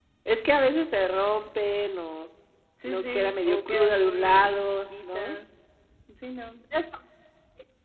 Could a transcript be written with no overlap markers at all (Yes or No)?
No